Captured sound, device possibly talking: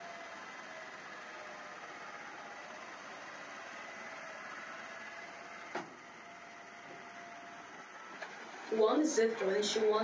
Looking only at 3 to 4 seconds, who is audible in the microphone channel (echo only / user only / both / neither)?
neither